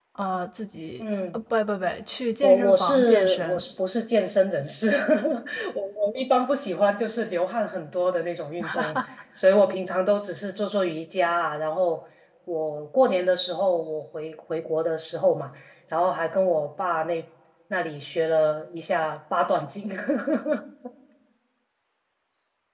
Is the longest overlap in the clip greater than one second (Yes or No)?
Yes